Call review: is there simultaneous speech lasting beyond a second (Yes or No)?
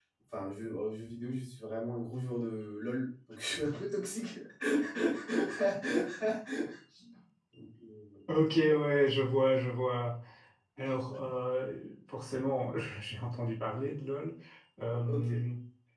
No